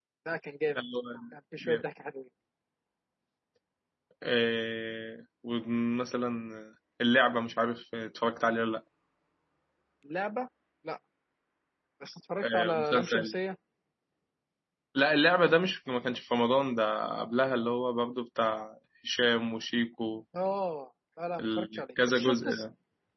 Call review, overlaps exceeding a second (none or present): present